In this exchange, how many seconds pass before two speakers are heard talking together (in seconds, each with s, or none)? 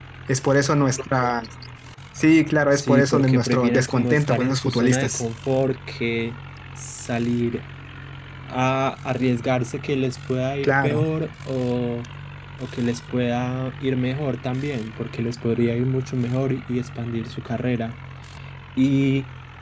2.7 s